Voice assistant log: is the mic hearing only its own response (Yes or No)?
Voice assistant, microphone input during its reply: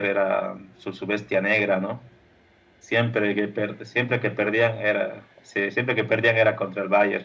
Yes